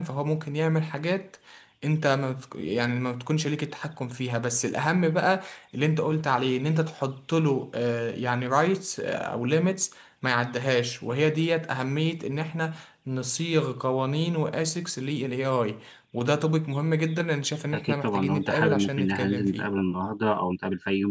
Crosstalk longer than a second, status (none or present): present